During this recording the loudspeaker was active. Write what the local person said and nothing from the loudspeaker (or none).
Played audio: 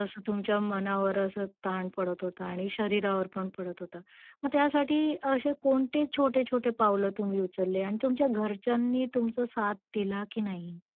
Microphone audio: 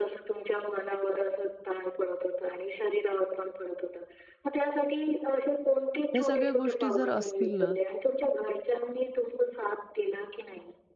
ह्या सगळ्या गोष्टी जर असतील ना,